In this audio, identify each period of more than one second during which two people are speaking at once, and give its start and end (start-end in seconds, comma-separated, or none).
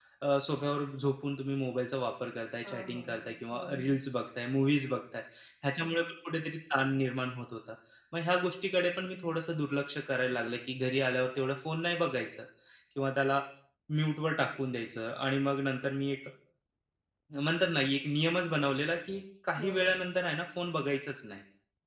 2.6-3.9